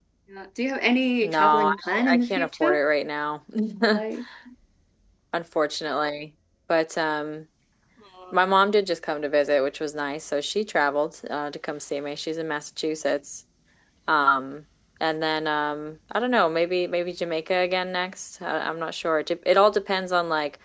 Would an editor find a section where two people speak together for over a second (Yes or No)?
Yes